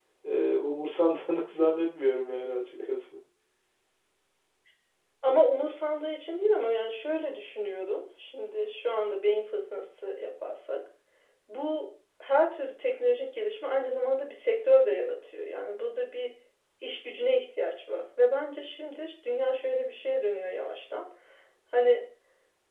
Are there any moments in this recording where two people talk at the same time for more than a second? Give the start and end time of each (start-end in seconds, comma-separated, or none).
none